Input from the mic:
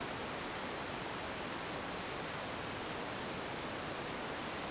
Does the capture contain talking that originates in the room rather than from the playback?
No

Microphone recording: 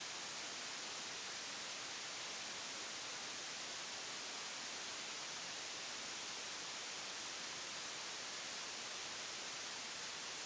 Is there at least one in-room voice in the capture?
No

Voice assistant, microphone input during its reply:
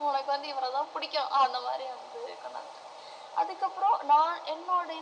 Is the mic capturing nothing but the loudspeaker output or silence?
Yes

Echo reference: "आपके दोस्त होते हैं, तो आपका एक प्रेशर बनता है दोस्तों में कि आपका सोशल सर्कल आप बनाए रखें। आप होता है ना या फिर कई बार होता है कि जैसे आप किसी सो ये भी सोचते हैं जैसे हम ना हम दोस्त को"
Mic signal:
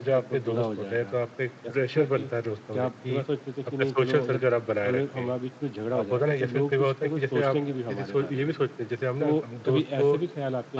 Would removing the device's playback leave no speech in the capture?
No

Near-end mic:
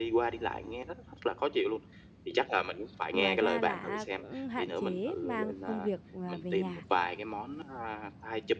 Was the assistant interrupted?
Yes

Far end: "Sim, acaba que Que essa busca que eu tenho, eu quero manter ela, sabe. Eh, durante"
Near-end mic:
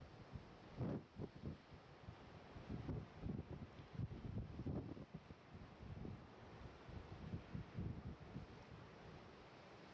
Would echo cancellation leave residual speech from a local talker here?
No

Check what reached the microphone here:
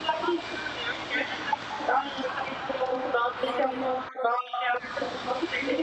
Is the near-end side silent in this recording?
Yes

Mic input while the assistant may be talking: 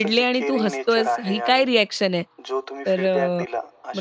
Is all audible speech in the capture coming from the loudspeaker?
No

